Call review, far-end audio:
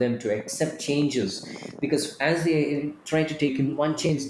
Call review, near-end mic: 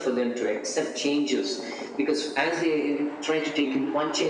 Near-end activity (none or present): none